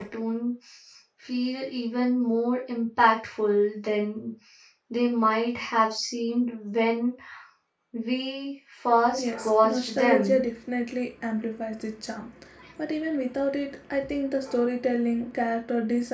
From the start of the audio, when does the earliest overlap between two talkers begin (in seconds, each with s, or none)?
9.2 s